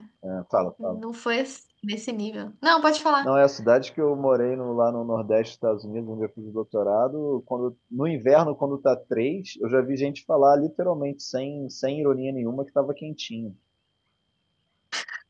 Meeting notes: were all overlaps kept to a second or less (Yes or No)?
Yes